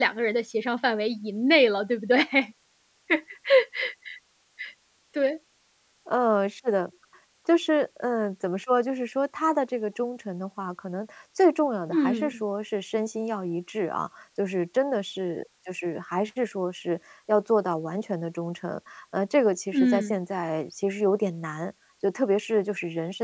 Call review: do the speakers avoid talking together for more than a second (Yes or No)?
Yes